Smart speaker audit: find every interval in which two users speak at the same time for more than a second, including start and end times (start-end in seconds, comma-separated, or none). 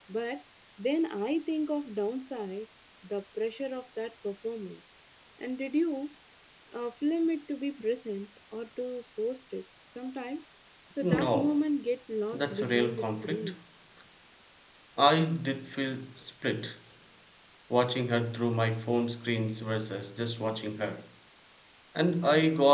12.3-13.5